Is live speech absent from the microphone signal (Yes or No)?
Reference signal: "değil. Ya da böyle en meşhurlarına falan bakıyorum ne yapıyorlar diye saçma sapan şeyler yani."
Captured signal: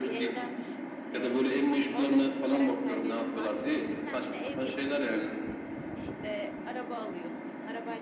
No